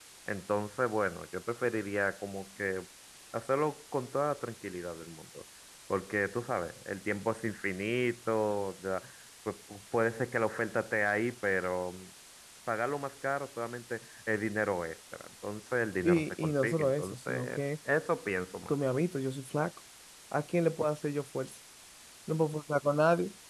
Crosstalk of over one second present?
Yes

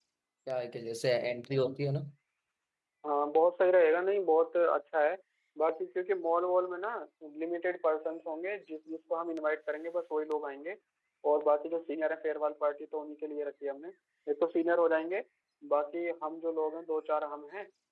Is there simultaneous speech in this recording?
No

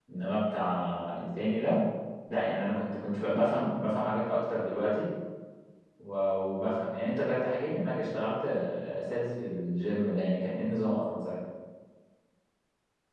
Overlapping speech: No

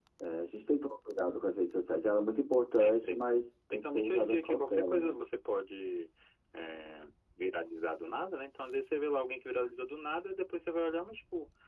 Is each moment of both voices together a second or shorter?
No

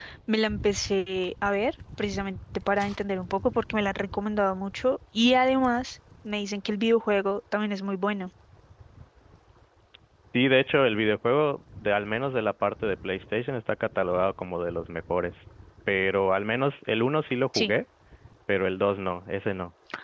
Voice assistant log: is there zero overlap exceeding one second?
Yes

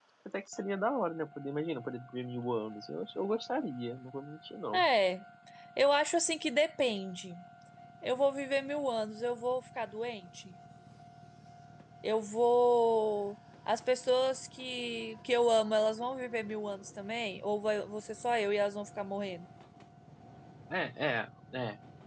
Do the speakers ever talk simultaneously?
No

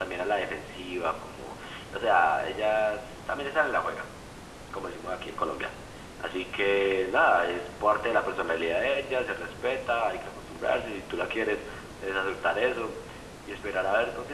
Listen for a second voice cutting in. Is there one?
No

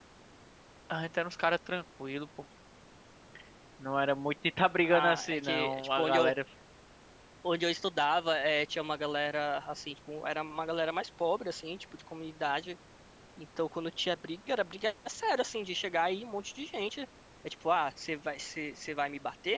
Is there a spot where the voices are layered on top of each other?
Yes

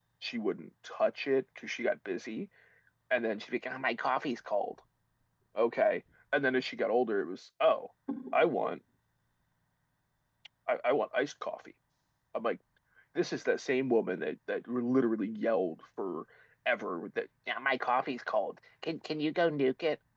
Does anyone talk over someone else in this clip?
No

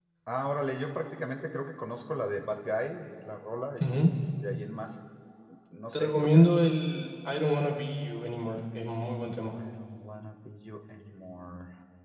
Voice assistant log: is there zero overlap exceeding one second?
Yes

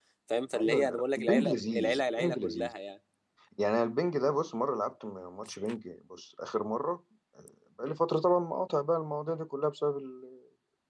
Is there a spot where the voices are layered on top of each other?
Yes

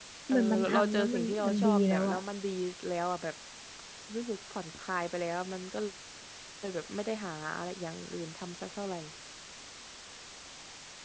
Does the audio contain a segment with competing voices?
Yes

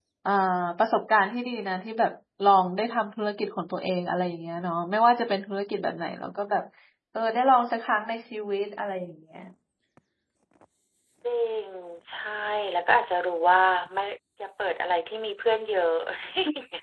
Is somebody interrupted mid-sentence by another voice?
No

